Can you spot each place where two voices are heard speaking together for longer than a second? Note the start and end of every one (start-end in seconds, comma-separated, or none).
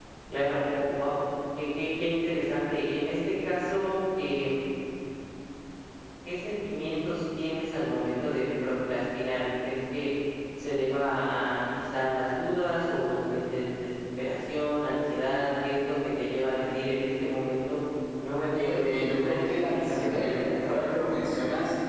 18.6-20.8